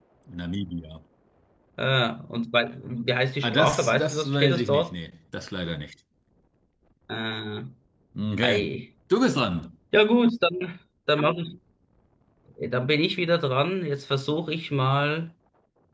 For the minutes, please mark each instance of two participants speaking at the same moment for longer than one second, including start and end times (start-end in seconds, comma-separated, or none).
3.4-4.9